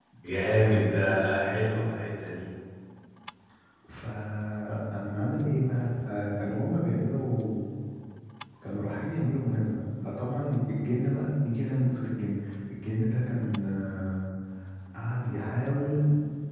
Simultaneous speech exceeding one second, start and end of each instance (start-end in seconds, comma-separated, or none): none